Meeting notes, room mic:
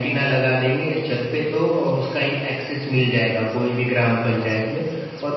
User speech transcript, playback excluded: none

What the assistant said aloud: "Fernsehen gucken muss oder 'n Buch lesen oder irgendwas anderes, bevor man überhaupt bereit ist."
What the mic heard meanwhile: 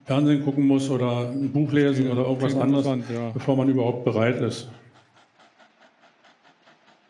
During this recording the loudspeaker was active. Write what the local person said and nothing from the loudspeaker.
Verstehe. Klingt interessant, ja.

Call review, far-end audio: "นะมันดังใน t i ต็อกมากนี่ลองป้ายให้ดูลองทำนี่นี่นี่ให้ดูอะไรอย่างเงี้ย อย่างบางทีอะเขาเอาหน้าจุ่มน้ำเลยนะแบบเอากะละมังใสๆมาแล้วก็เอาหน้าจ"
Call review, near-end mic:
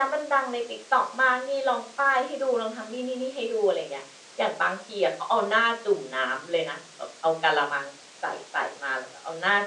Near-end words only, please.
none

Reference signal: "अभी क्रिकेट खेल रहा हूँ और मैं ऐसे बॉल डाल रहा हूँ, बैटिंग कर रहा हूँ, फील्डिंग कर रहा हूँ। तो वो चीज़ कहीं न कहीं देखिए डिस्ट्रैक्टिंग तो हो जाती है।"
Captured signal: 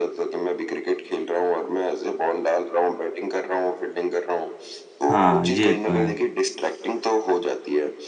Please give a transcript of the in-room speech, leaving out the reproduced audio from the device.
हाँ, ये तो है।

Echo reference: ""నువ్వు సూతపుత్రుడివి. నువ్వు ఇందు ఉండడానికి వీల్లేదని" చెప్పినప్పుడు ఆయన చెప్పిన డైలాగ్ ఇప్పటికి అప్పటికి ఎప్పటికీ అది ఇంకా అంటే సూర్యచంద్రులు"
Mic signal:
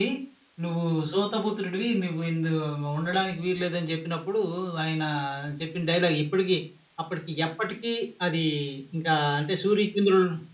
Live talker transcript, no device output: none

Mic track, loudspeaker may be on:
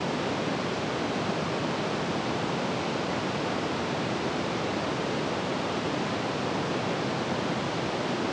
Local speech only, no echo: none

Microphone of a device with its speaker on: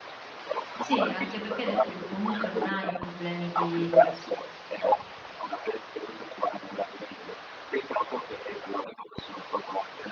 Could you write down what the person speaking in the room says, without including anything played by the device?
sì, anche perché hai detto che comunque non hai problemi di

